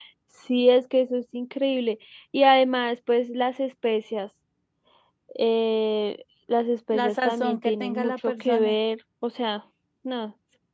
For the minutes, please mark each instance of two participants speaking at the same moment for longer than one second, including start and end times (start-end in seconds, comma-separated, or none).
6.9-8.8